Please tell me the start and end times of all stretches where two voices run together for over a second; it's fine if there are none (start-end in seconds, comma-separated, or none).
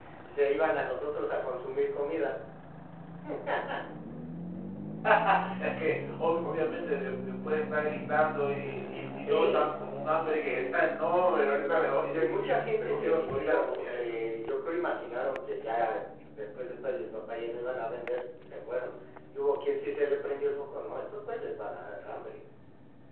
12.2-14.2